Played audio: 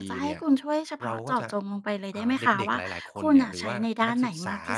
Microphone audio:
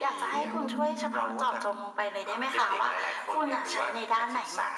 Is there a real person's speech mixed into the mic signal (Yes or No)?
Yes